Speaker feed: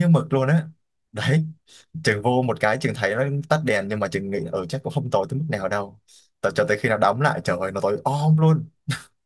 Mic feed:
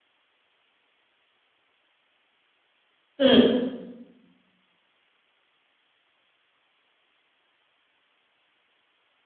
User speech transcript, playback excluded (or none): Ừ.